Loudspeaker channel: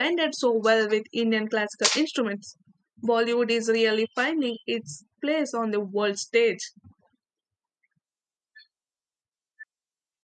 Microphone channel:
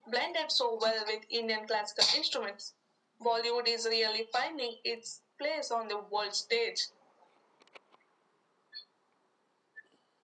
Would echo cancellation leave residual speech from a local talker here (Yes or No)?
No